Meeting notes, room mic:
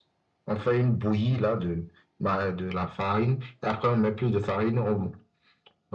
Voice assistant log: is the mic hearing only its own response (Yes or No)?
Yes